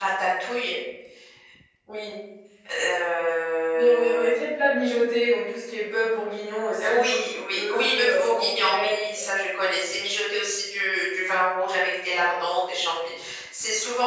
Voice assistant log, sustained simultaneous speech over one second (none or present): present